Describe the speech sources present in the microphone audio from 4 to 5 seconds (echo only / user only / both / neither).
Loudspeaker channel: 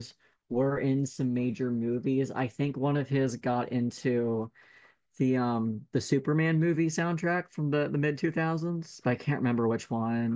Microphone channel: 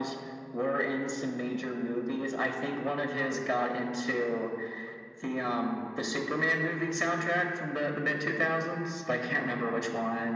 echo only